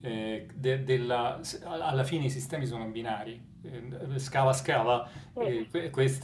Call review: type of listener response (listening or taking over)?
listening